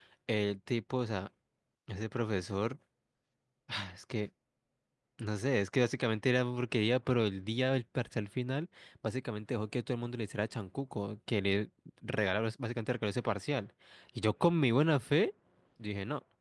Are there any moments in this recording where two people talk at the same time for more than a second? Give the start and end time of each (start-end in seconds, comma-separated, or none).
none